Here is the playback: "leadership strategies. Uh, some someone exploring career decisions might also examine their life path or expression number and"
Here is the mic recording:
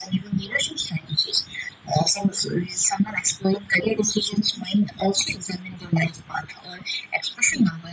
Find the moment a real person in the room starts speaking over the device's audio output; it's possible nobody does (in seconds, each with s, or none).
none